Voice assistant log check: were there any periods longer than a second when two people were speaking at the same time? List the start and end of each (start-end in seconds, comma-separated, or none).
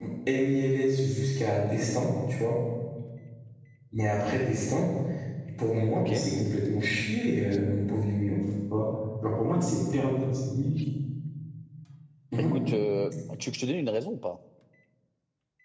none